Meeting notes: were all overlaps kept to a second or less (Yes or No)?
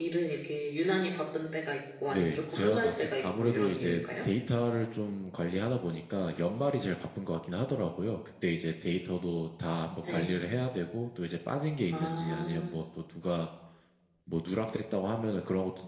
No